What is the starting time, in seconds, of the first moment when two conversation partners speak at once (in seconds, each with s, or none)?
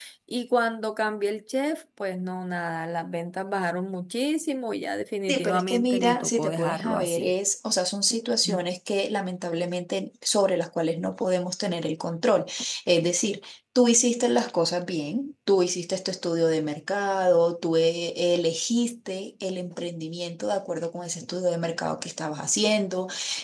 5.3 s